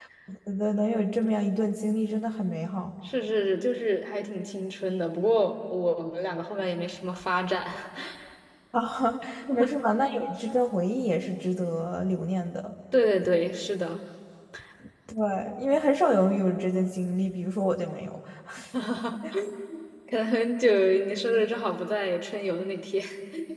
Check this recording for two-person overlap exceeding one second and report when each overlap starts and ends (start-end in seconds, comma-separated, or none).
none